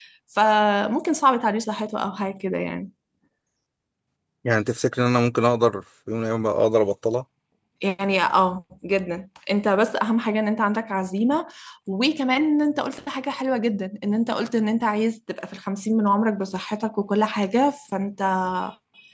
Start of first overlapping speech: none

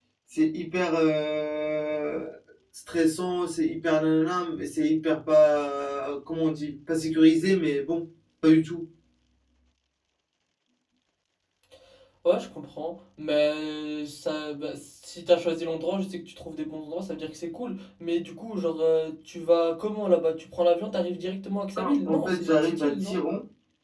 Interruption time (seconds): 21.8 s

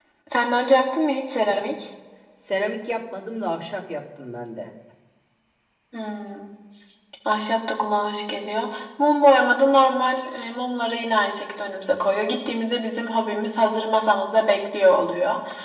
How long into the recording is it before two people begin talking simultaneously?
none

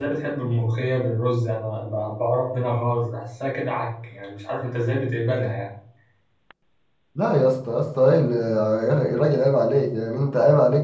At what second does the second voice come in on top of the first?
none

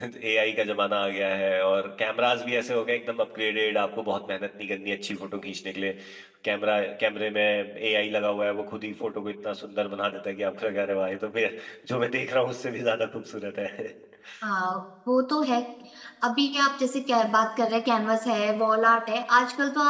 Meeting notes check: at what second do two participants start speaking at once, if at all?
none

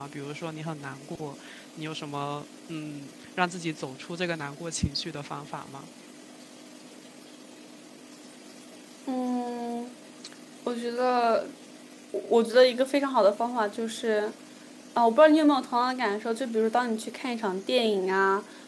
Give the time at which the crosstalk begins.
none

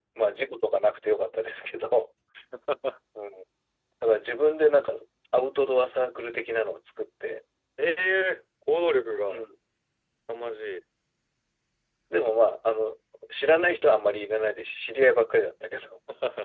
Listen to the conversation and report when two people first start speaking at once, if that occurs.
none

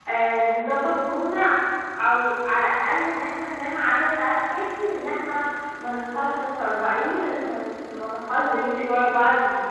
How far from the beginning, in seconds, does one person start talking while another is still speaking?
none

